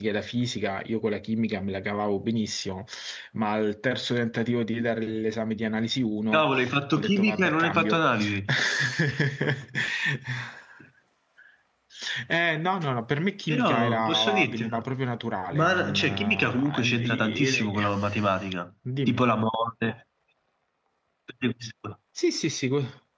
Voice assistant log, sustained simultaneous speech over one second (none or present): present